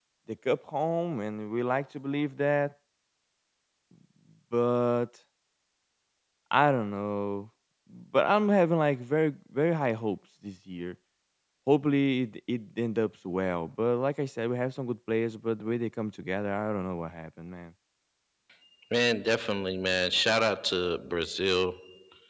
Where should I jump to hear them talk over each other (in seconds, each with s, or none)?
none